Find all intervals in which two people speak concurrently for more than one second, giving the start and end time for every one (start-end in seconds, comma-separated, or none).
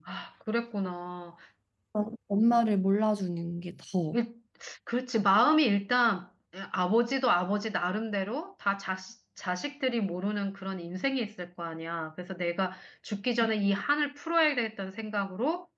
none